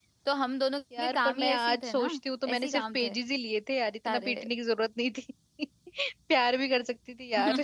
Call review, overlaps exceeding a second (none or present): present